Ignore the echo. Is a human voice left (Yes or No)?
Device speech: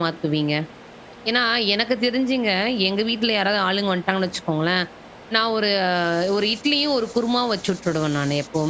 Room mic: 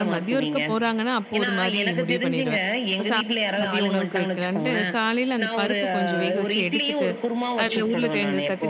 Yes